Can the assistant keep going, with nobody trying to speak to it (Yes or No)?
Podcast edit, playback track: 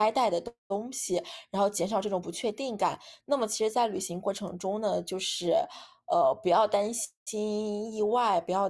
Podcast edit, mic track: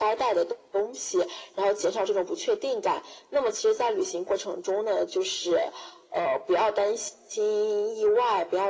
Yes